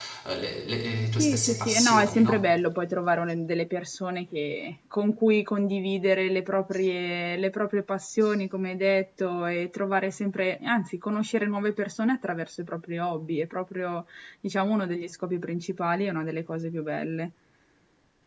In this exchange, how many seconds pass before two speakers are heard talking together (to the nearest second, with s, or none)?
1 s